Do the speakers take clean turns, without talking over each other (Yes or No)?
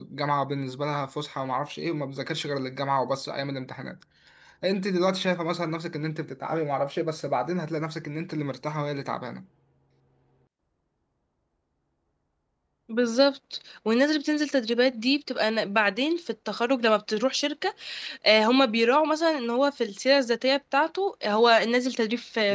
Yes